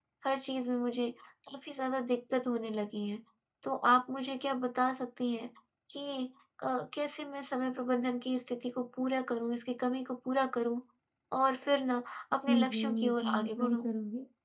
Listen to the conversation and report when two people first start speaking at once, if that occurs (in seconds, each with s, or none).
12.3 s